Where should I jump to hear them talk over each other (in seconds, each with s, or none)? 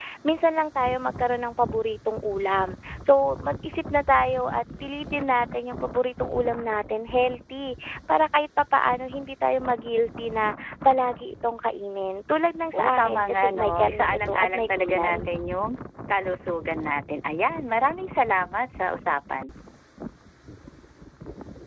12.7 s